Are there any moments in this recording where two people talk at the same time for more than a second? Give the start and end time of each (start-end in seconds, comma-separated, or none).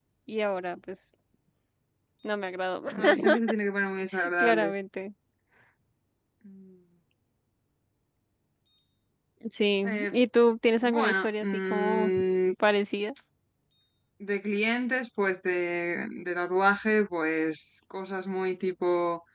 10.8-12.1